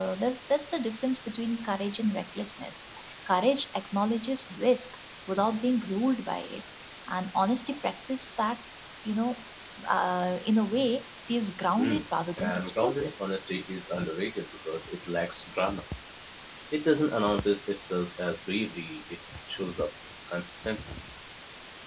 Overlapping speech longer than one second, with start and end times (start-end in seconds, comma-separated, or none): 11.8-13.1